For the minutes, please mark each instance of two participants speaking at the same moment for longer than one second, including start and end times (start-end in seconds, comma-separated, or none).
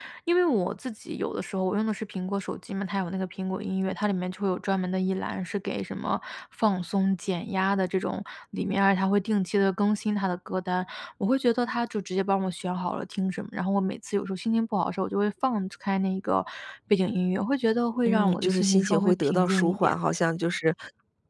18.1-19.9